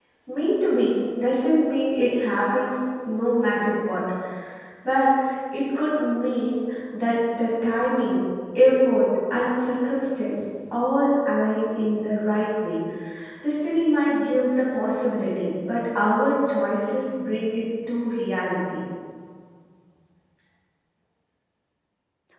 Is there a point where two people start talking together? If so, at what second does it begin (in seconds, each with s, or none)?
none